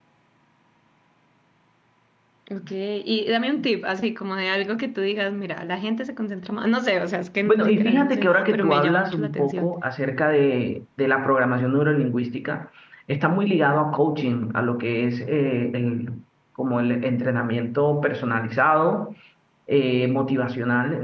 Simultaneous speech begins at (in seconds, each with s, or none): 7.4 s